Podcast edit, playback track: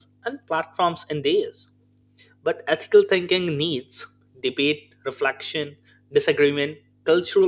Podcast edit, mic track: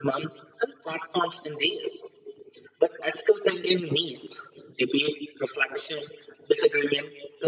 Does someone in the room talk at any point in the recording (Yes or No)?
No